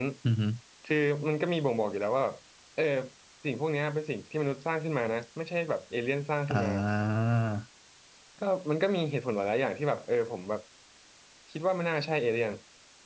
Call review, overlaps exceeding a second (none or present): none